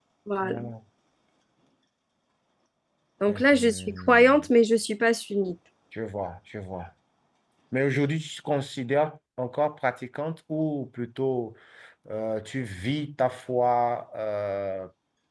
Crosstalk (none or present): present